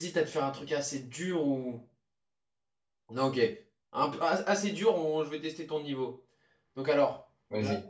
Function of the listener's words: listening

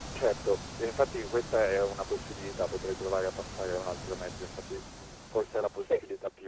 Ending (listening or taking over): listening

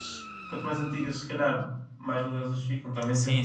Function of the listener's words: taking over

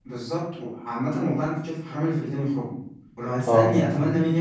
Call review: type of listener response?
listening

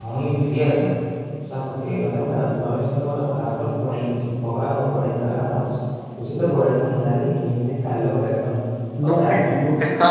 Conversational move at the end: taking over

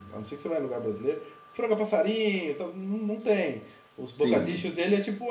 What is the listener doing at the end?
listening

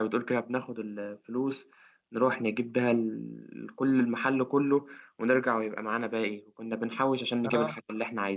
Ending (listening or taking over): listening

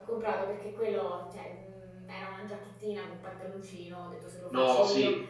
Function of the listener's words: listening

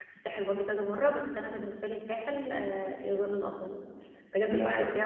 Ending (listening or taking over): listening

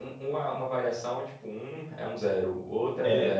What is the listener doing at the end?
taking over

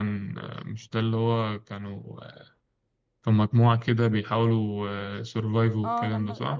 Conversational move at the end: taking over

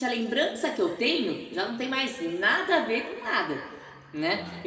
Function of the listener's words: listening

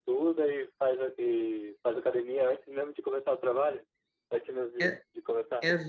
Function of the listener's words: taking over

